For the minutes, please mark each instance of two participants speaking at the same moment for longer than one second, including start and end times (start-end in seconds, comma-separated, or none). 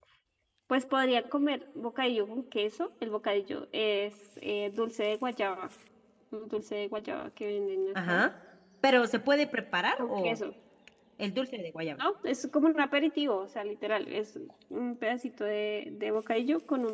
none